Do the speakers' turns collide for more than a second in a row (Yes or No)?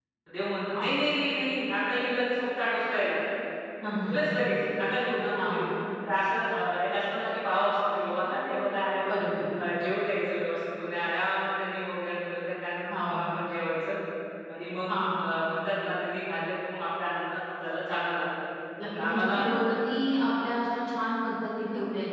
No